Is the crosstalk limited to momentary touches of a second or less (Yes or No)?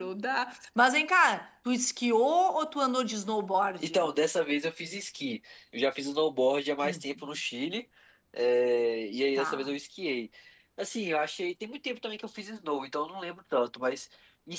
Yes